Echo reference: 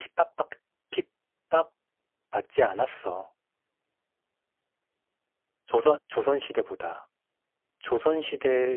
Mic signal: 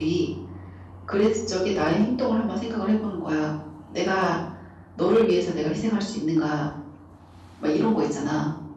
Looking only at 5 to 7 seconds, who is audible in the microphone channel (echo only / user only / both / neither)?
user only